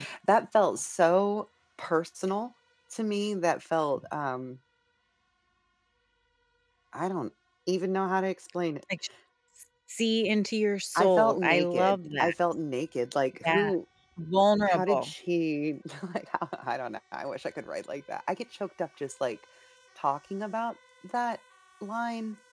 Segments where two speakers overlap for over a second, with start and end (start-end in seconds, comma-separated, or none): 10.9-12.3